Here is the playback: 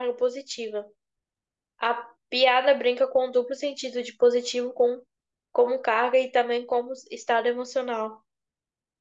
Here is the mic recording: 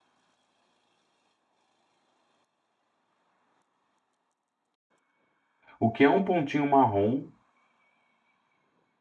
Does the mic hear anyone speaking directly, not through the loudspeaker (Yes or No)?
Yes